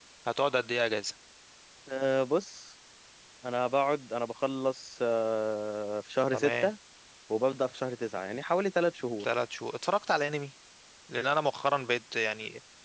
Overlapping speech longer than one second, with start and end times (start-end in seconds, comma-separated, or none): none